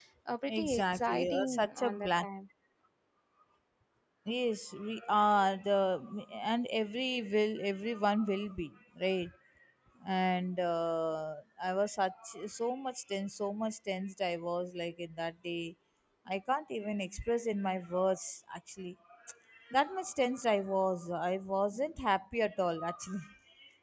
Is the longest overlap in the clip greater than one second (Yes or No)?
Yes